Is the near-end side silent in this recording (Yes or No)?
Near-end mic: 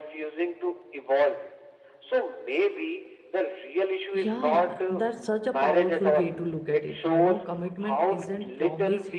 No